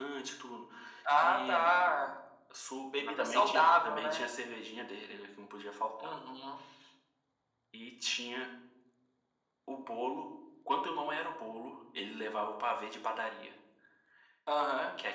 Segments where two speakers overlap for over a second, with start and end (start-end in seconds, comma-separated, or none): 2.8-4.3